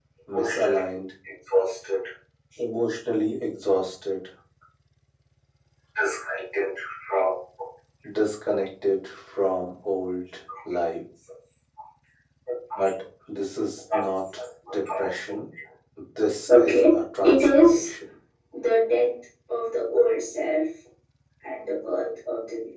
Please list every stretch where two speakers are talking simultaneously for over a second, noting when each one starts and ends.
16.6-17.9

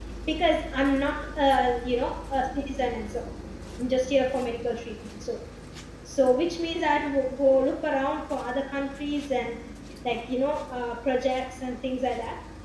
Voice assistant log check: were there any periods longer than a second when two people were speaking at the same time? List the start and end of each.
none

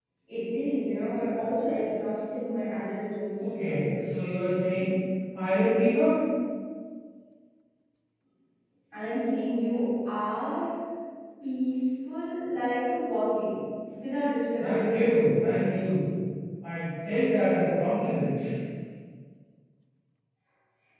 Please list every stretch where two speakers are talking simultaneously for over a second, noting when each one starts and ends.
none

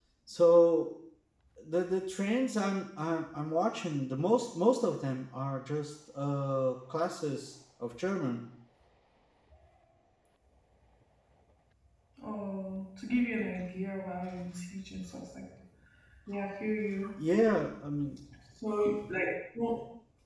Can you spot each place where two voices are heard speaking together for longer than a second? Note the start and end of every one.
none

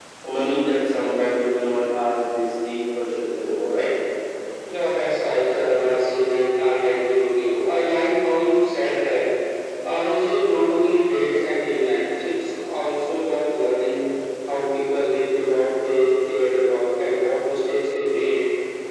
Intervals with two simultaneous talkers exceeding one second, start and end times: none

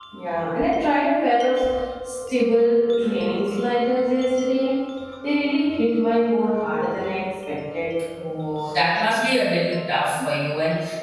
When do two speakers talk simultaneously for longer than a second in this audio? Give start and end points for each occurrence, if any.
none

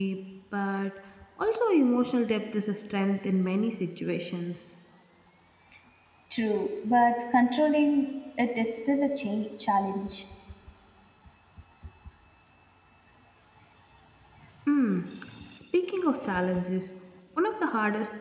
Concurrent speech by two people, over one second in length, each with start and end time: none

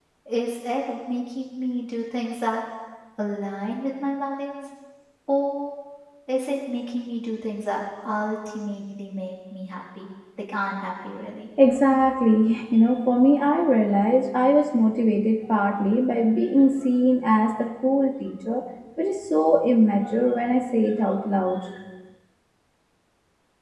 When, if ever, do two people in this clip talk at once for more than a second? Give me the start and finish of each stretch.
none

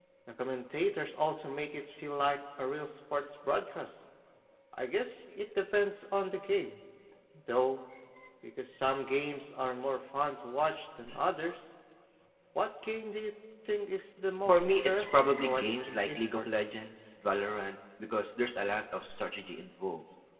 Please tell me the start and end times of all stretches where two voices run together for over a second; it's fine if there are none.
14.4-16.7

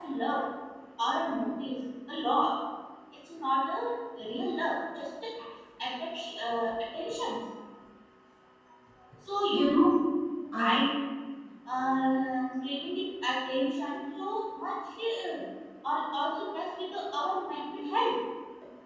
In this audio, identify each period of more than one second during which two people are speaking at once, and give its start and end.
none

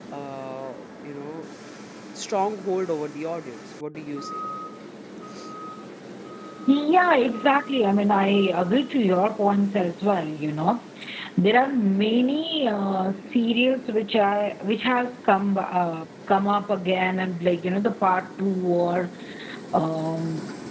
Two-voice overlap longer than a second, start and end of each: none

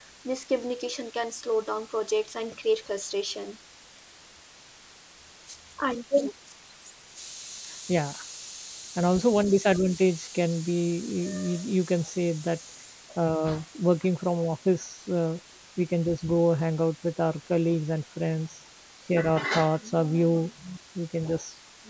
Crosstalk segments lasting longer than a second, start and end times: none

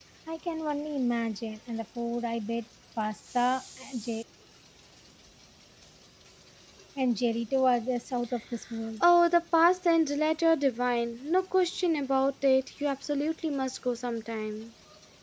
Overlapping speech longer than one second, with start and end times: none

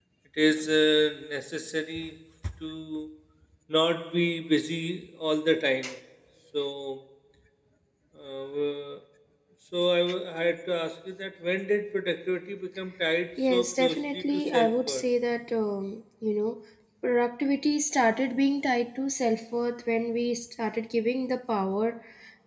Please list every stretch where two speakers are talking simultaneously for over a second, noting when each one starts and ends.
13.4-15.1

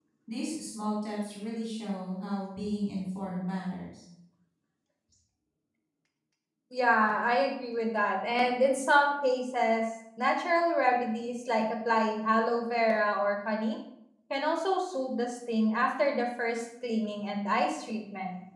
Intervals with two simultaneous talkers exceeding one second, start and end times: none

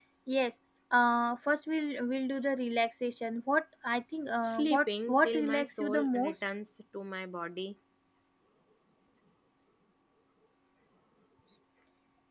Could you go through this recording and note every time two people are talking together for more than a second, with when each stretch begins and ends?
4.4-6.3

